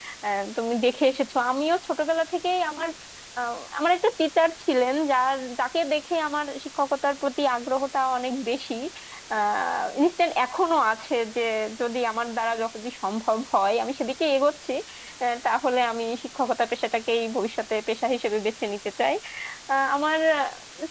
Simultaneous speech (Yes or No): No